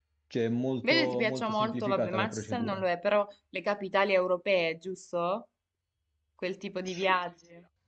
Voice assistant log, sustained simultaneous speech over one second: present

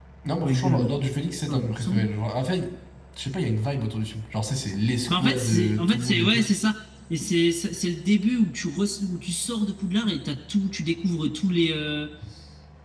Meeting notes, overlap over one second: present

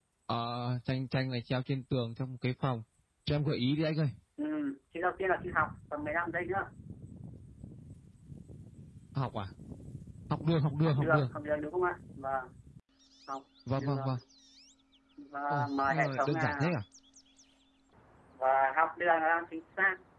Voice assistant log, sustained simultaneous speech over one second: present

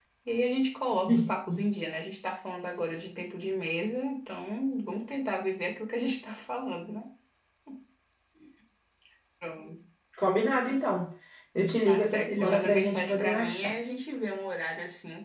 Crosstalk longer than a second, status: present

